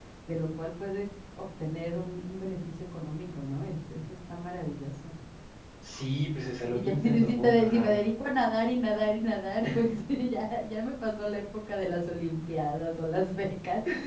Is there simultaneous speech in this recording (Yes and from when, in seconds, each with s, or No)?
Yes, from 6.7 s